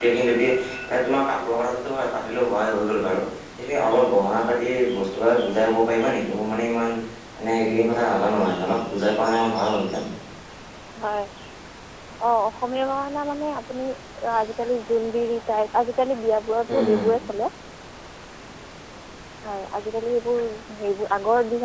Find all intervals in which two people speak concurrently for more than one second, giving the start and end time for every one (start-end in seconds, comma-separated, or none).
none